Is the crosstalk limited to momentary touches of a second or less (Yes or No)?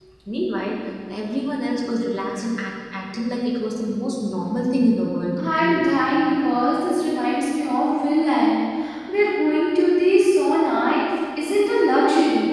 Yes